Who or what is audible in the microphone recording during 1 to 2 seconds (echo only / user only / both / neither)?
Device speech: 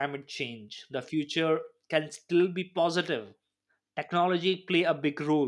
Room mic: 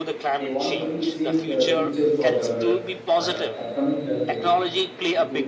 both